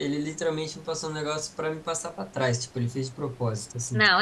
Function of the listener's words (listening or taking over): taking over